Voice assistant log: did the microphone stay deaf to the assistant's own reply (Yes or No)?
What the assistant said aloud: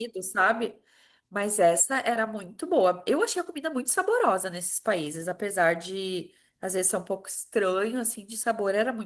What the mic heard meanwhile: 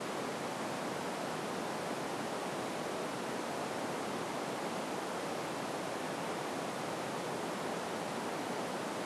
Yes